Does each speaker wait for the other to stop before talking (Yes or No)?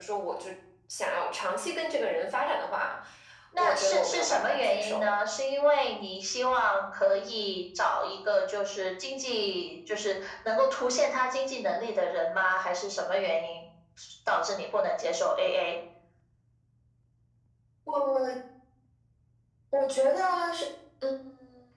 No